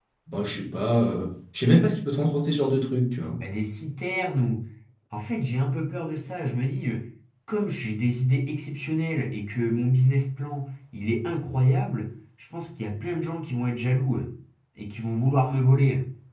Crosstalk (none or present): none